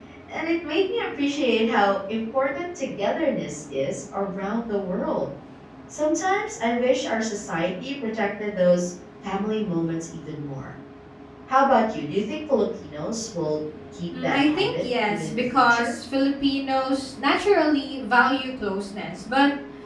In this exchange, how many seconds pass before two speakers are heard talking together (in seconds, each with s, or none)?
14.1 s